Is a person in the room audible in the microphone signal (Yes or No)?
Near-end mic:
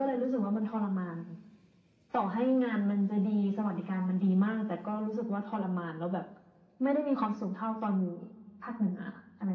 No